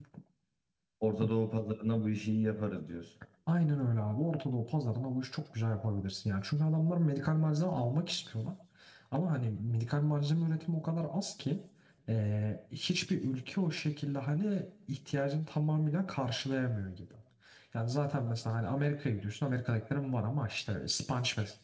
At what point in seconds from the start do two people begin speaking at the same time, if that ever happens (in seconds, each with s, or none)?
none